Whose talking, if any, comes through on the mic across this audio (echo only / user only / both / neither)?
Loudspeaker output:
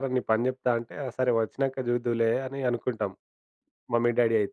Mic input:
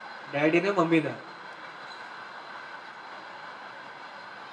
user only